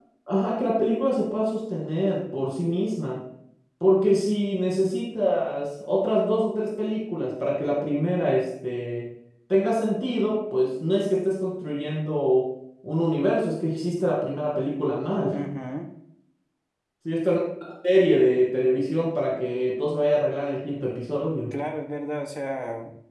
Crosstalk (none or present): none